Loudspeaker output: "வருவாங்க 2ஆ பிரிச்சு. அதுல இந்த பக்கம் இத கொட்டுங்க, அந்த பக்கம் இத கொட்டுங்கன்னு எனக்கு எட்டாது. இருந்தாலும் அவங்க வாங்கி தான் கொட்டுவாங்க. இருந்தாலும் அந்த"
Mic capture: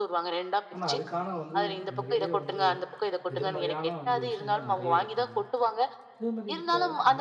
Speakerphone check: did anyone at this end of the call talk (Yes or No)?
Yes